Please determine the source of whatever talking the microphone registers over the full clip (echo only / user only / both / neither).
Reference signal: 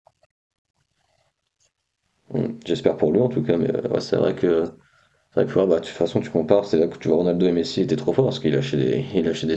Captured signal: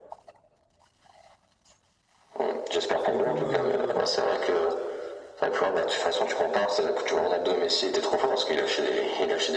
both